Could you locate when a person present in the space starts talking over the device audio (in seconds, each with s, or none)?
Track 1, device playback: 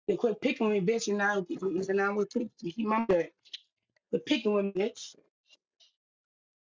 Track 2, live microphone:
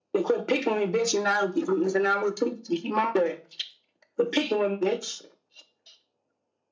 none